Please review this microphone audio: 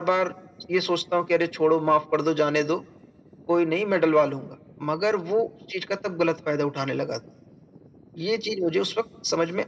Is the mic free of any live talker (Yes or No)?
Yes